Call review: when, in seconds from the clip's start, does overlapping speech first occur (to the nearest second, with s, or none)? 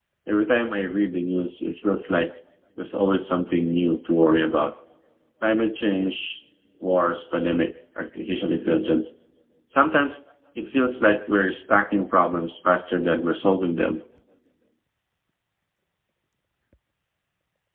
none